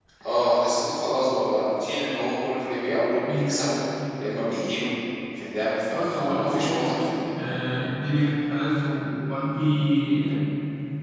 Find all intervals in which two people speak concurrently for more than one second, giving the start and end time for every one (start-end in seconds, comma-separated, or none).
5.9-7.1